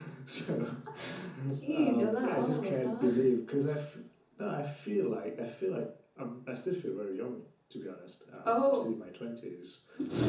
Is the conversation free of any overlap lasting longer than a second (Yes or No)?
No